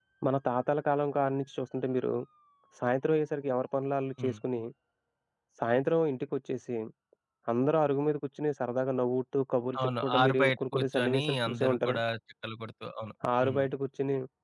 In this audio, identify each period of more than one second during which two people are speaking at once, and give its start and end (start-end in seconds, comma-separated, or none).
10.0-12.0